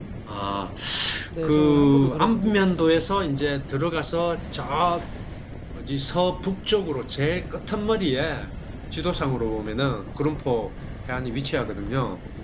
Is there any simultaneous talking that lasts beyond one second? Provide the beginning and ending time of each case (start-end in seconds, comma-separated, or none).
1.4-3.1